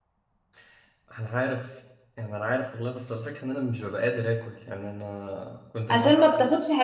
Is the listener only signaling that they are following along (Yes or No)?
No